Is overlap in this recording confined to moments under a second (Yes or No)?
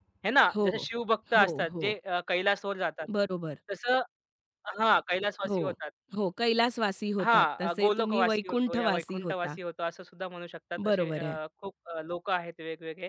No